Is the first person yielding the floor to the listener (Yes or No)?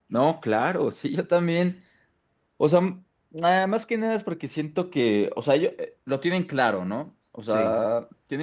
No